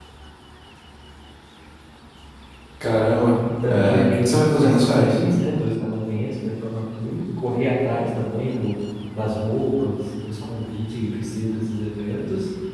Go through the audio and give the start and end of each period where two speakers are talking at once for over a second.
3.7-5.2

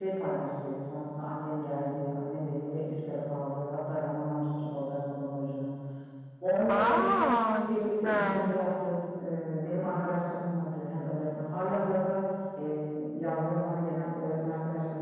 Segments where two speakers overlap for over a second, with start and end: 6.7-8.4

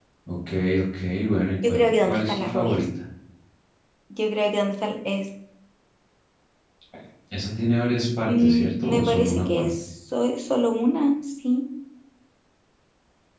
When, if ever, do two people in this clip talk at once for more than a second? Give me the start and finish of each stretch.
1.6-2.8, 8.3-9.7

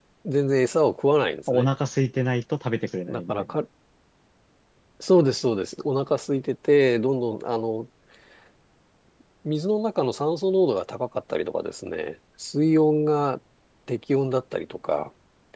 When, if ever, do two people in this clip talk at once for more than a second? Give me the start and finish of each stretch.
none

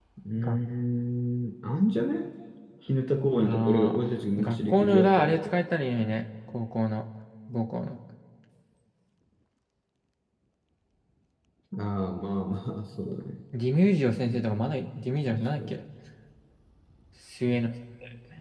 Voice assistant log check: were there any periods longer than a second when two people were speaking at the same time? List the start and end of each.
3.4-5.6

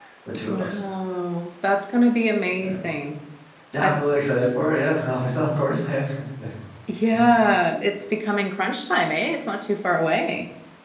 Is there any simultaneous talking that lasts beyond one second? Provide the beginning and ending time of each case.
none

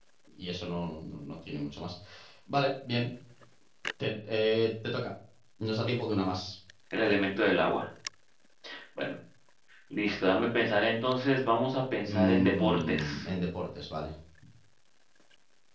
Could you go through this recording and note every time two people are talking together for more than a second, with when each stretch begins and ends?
12.0-13.3

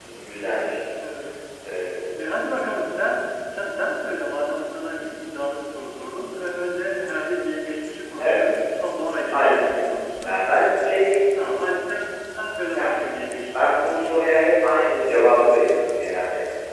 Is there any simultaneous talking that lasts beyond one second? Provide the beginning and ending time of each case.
none

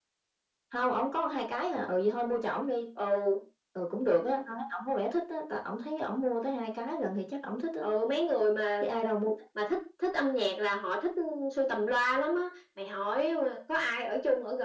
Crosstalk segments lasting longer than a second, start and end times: none

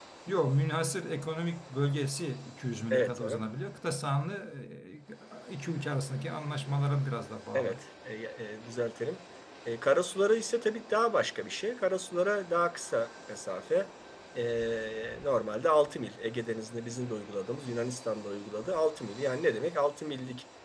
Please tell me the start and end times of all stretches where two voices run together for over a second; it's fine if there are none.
none

